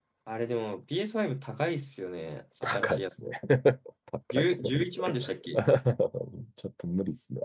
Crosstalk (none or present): present